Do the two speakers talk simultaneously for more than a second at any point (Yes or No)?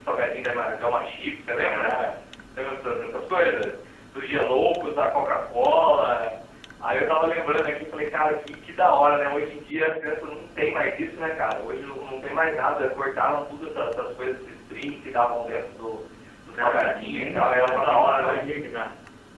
Yes